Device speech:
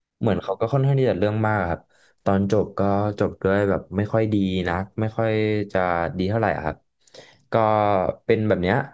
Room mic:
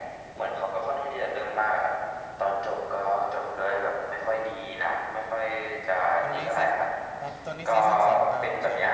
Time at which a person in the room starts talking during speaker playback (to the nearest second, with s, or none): 6 s